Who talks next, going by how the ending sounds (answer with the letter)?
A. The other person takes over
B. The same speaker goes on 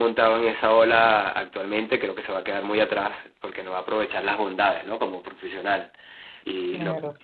A